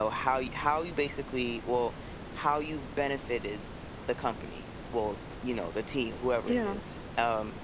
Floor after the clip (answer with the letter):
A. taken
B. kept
B